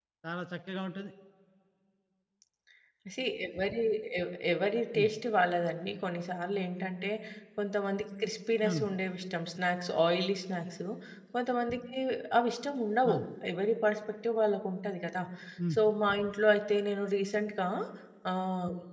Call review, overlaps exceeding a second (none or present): none